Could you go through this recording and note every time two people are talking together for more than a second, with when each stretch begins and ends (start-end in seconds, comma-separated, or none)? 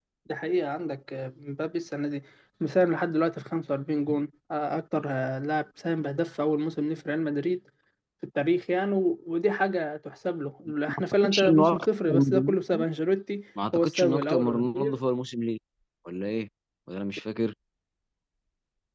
11.0-12.6, 13.7-15.0